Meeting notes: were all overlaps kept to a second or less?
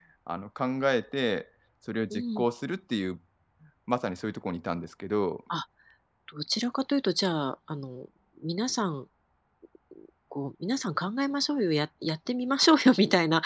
Yes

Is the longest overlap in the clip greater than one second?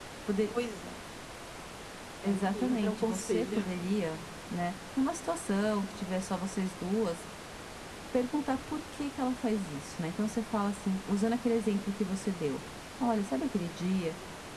Yes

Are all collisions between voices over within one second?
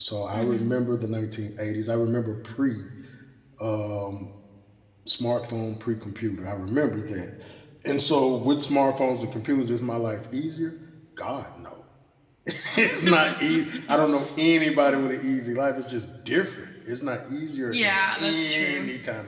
No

